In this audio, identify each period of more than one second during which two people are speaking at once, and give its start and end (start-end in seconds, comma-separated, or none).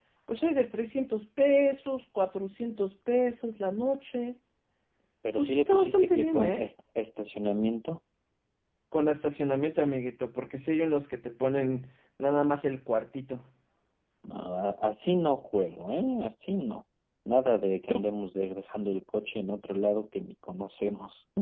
5.4-6.7